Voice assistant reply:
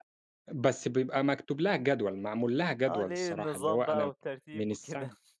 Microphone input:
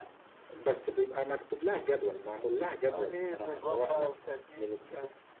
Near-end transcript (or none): none